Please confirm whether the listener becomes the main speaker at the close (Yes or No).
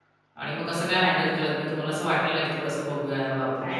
Yes